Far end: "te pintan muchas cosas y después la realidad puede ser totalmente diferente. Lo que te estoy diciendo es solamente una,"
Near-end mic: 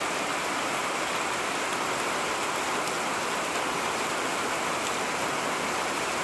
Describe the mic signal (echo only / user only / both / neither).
neither